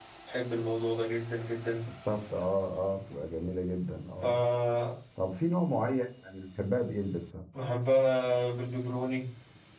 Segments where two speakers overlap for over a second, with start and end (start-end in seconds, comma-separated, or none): none